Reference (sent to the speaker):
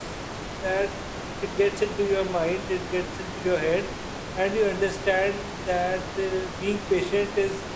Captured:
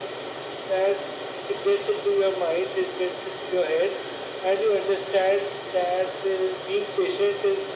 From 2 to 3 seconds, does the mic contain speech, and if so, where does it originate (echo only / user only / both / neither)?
echo only